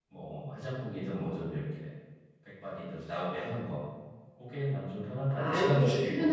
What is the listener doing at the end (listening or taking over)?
taking over